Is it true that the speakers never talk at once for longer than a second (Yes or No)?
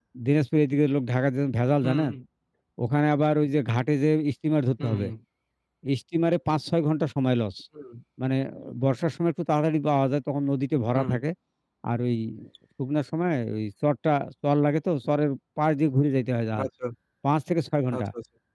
Yes